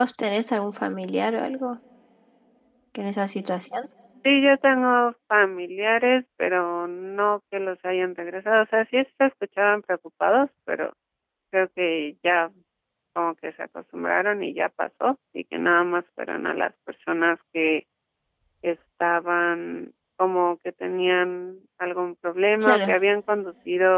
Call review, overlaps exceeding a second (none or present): none